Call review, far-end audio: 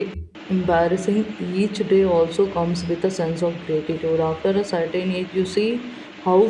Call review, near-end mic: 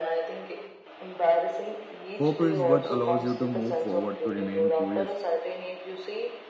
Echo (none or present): present